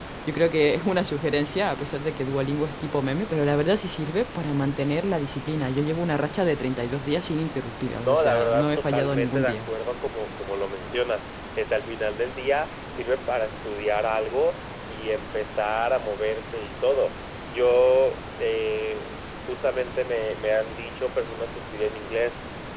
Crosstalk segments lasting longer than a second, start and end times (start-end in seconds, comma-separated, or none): 8.0-9.7